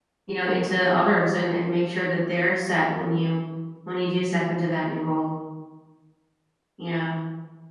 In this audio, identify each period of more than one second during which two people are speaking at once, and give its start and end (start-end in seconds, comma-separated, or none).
none